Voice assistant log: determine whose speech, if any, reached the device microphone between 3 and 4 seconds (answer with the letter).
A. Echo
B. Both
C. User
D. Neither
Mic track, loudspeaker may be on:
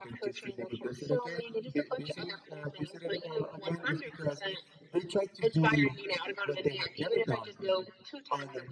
A